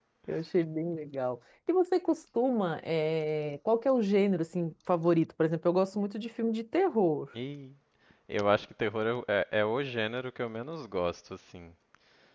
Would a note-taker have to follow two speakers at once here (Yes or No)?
No